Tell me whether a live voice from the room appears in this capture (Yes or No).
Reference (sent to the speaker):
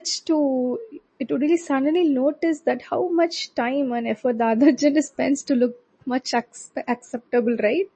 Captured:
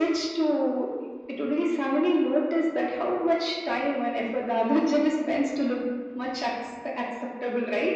No